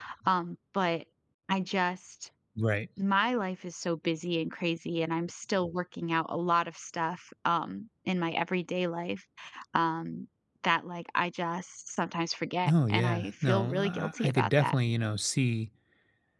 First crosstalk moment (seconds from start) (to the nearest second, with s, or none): 13 s